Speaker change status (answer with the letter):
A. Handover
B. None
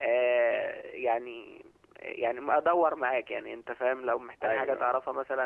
B